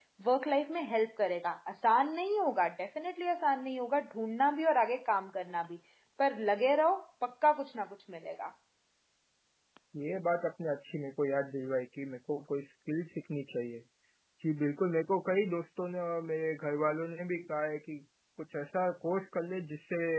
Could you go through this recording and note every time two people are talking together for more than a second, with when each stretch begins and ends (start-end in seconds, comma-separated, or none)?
none